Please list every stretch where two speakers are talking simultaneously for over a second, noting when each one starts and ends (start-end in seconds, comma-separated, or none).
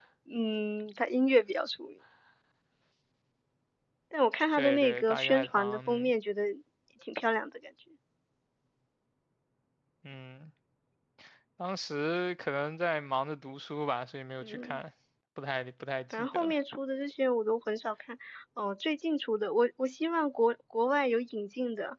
4.5-6.1